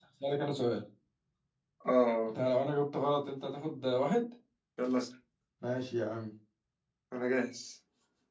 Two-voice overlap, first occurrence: none

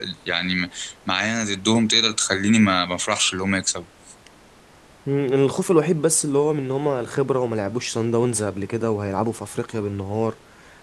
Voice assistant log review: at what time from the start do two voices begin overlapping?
none

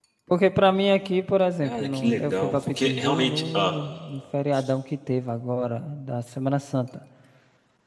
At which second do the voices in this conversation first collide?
1.6 s

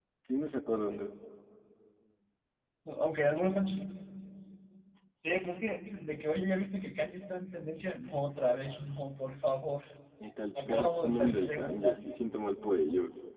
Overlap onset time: 10.7 s

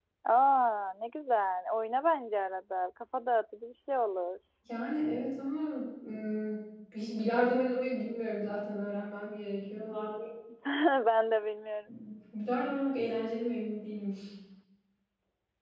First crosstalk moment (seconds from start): none

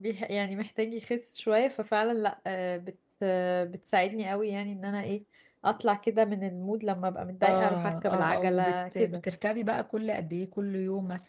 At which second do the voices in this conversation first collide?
7.4 s

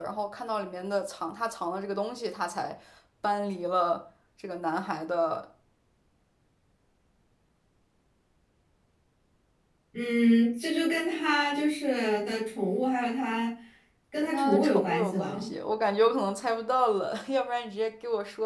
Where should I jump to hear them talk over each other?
14.2 s

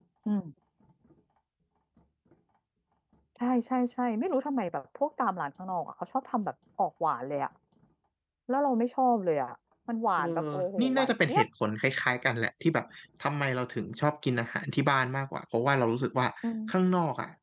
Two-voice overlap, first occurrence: 10.2 s

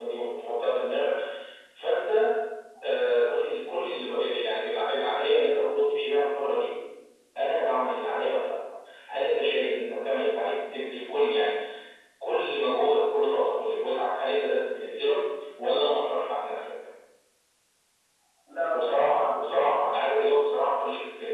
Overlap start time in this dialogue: 18.7 s

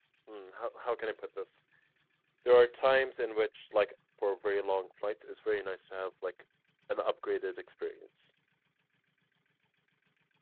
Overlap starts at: none

